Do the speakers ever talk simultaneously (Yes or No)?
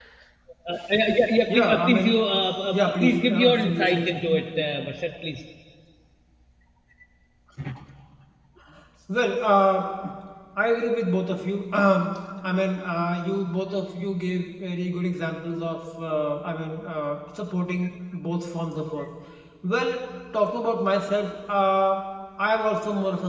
Yes